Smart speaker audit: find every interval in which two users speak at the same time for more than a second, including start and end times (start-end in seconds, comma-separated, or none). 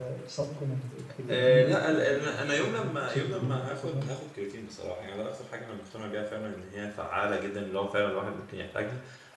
1.3-4.0